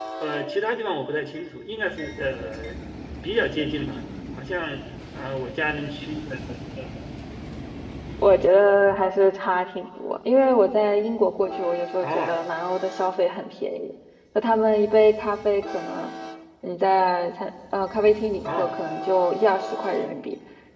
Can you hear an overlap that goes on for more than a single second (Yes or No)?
No